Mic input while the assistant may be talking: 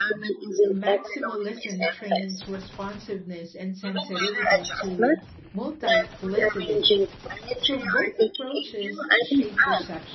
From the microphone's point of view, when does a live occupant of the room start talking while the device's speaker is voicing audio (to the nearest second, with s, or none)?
1 s